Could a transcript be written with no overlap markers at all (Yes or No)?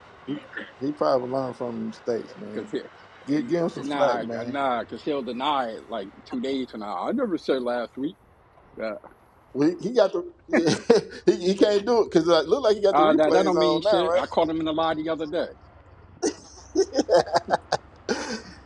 No